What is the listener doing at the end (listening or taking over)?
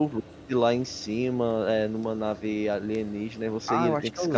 taking over